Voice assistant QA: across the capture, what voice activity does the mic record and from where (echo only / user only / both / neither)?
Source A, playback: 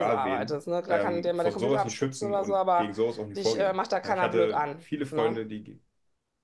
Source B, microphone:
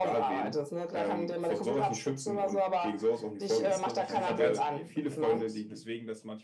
both